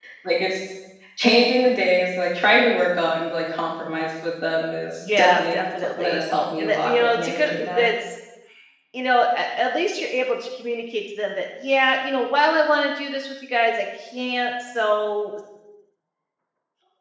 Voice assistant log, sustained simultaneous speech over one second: present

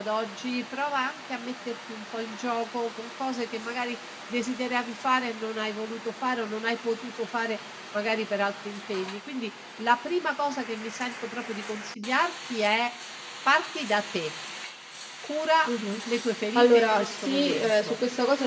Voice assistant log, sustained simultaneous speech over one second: present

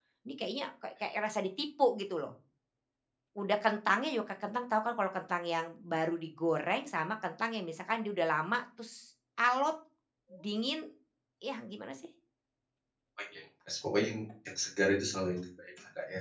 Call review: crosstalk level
none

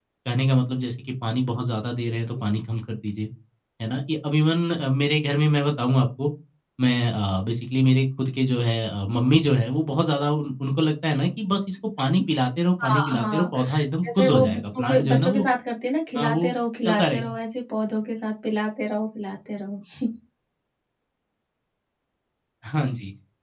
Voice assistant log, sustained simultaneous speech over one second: present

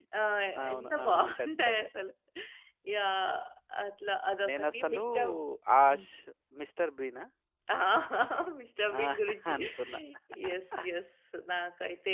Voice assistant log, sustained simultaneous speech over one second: present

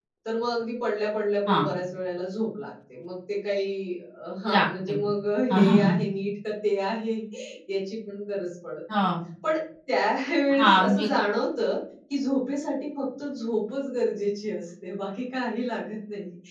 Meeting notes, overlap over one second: none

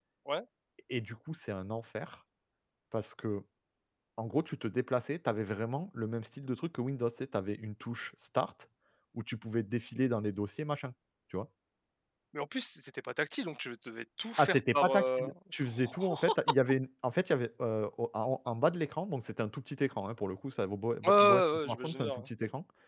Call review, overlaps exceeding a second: present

